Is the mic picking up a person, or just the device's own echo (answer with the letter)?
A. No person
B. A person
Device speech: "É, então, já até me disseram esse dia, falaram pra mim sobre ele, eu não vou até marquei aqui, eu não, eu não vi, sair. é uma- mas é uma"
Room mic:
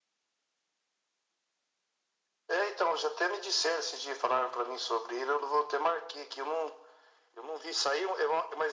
A